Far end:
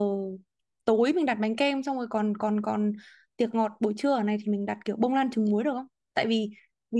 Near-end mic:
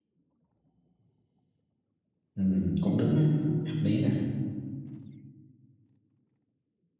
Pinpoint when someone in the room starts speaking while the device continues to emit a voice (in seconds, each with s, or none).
2.3 s